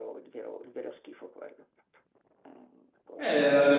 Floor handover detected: Yes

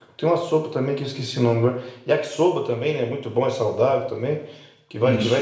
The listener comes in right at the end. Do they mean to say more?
No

